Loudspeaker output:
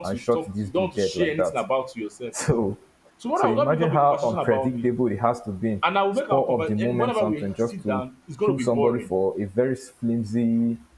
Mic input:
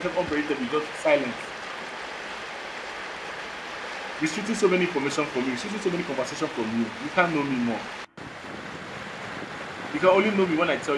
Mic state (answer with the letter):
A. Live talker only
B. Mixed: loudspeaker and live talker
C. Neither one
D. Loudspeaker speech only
A